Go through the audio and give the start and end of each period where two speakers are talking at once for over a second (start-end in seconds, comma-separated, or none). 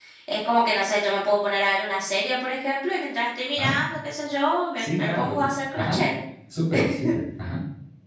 4.8-6.0